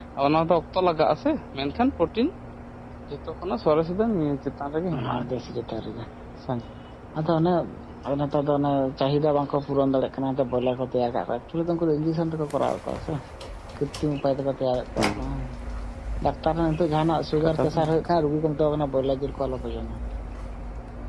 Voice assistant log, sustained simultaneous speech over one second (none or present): none